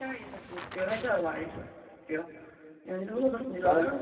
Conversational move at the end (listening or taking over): taking over